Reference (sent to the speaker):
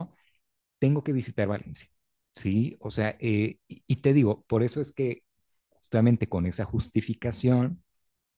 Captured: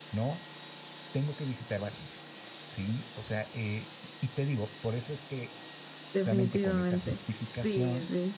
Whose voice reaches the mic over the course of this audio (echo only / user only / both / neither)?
both